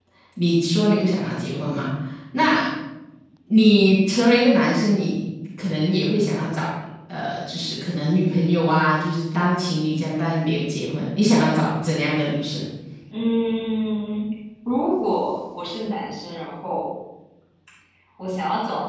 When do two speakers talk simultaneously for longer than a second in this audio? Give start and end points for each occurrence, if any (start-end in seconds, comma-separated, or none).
none